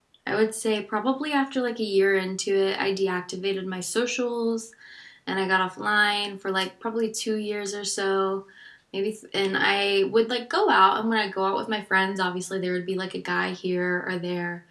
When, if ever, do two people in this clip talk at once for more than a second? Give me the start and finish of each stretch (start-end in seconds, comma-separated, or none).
none